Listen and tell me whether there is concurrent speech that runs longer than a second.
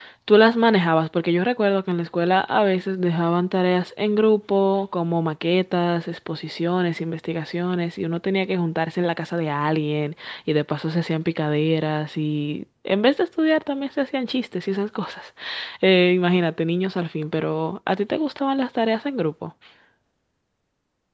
No

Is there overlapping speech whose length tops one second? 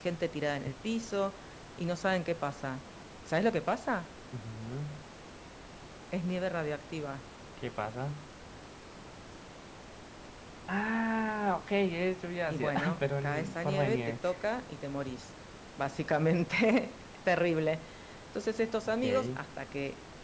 Yes, from 12.5 s

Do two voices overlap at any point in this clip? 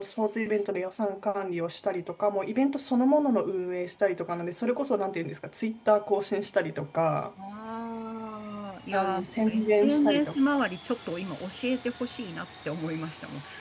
Yes, from 8.9 s

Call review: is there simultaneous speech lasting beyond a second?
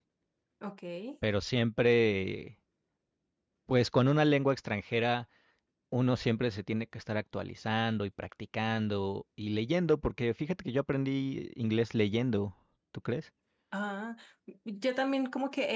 No

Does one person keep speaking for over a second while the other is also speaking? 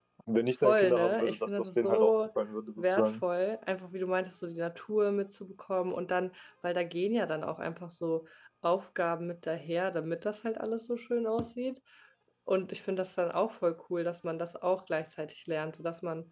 Yes, from 0.6 s

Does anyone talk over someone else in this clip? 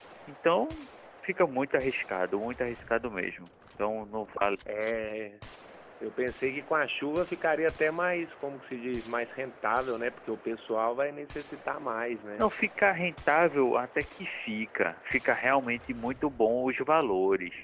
No

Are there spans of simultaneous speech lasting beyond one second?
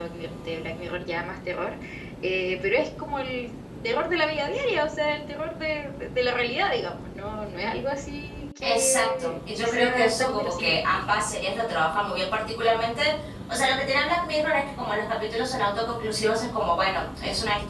Yes, from 8.6 s

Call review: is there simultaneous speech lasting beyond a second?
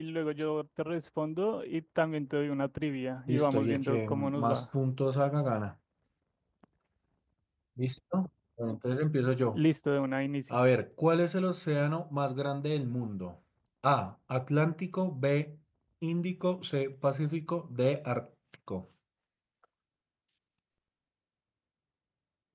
Yes, from 3.3 s

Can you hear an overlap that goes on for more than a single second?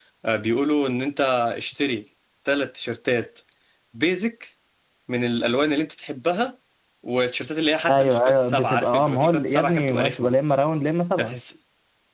Yes, from 7.9 s

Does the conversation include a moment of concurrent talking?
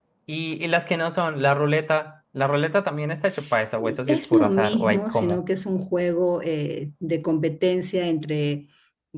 Yes, from 4.1 s

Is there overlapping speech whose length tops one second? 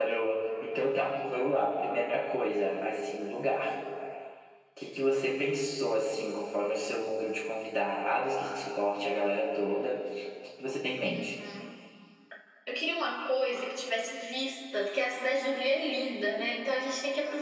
No

